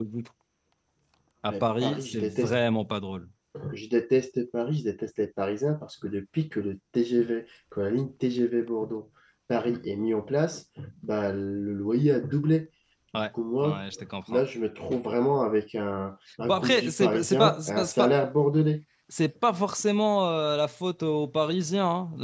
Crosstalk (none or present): present